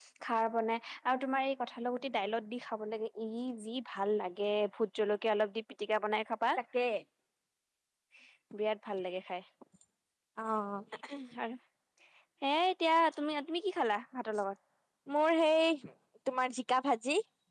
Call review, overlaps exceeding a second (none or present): none